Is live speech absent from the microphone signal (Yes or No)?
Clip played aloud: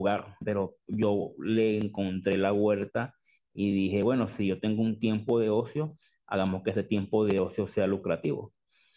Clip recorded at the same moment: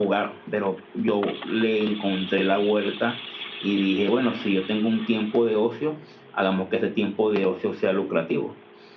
Yes